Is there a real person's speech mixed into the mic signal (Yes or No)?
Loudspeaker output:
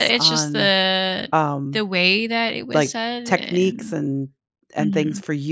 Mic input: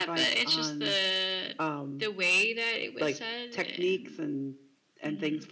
No